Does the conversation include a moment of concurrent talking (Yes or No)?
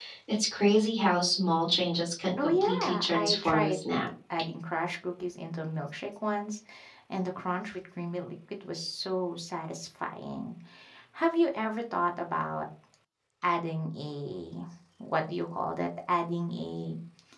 Yes